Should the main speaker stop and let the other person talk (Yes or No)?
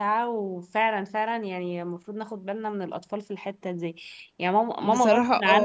No